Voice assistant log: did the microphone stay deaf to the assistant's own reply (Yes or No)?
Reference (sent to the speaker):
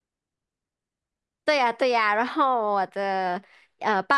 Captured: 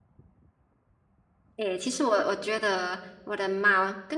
Yes